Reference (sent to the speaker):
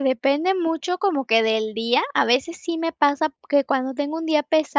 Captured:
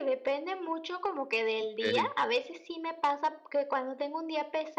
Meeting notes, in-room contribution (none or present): present